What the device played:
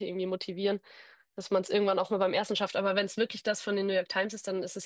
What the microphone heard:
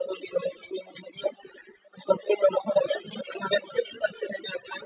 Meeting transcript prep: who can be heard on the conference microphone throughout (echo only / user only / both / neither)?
echo only